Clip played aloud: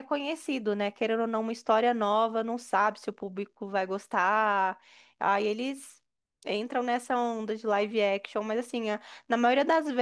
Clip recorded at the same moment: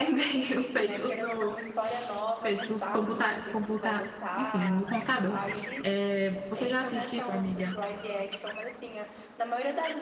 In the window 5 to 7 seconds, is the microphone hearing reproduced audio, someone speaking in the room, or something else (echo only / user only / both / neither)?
both